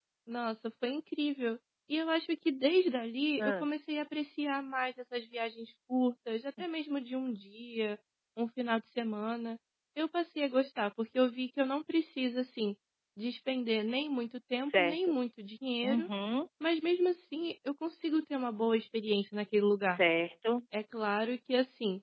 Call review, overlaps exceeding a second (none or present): none